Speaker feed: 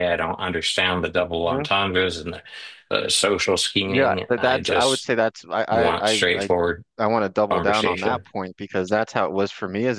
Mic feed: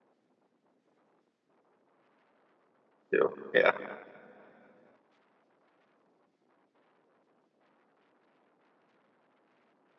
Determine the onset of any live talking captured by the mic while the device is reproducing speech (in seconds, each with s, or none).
3.1 s